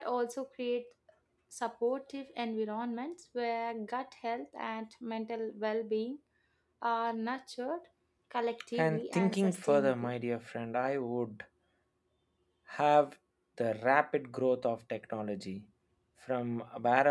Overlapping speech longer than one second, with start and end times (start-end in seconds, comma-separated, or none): 8.8-10.1